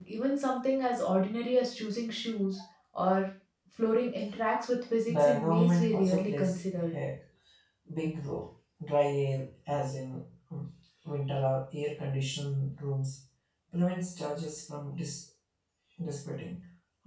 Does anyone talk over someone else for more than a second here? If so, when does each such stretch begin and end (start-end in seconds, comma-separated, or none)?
5.1-6.9